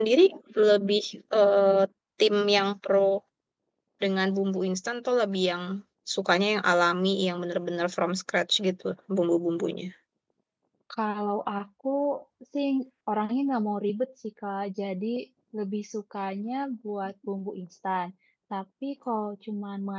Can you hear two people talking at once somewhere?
No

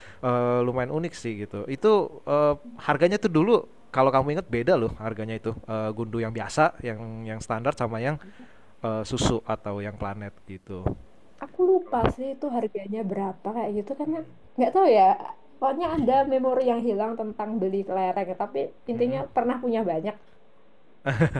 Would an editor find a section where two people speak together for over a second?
No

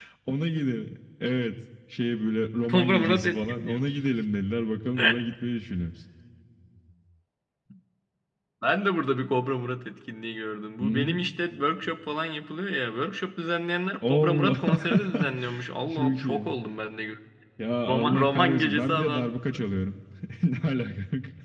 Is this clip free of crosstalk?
No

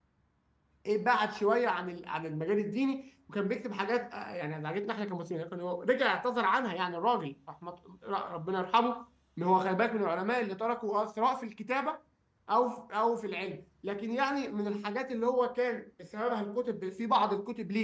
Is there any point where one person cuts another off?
No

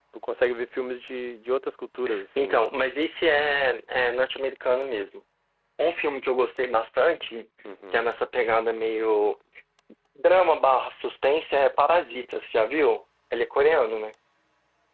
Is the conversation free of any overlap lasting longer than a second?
Yes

